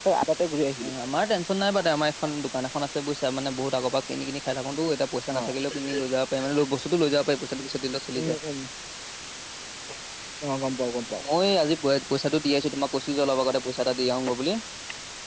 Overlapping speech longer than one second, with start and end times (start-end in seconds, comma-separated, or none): none